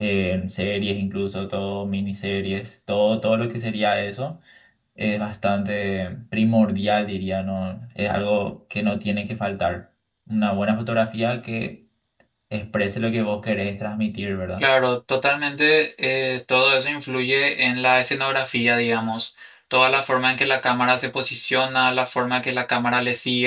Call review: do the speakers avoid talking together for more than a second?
Yes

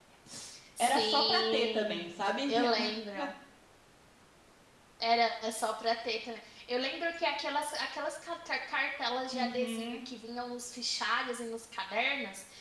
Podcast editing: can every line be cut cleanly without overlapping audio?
No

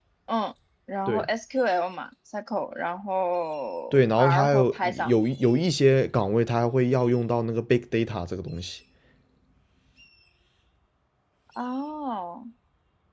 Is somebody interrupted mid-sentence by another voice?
Yes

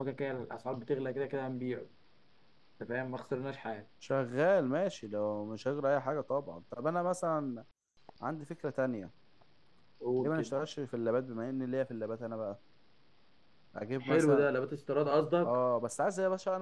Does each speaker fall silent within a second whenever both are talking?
Yes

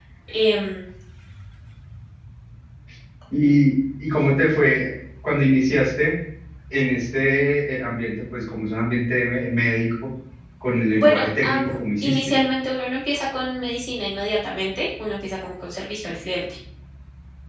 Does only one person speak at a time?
No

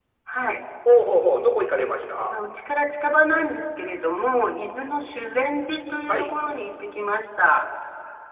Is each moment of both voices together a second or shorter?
Yes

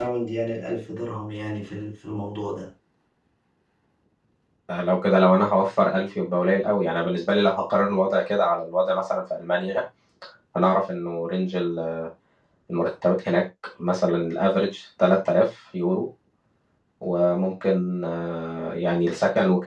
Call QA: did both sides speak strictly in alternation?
Yes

